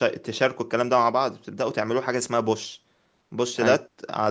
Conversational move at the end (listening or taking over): listening